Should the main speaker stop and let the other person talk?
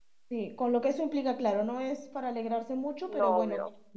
No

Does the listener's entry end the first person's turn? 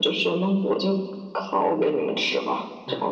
Yes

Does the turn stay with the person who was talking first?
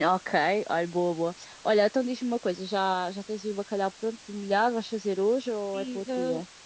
No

